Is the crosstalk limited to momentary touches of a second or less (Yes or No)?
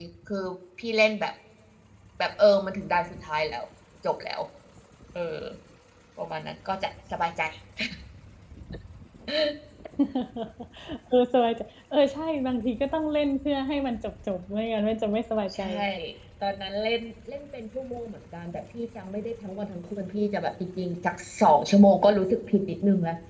Yes